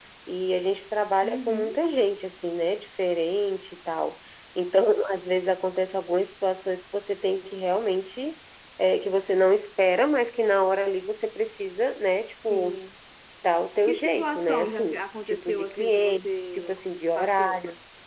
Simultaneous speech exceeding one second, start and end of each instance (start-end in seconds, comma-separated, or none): 13.9-16.7